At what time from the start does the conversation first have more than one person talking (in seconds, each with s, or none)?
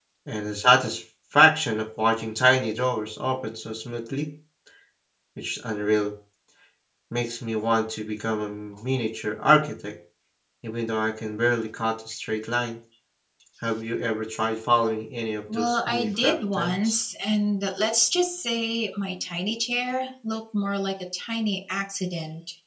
15.5 s